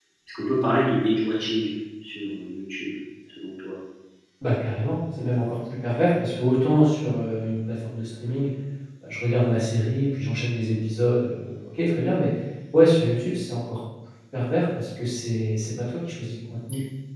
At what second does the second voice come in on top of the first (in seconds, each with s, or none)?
none